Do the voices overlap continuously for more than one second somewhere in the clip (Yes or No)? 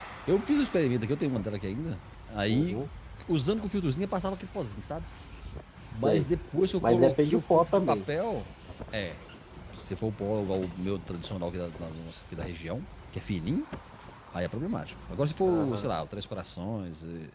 Yes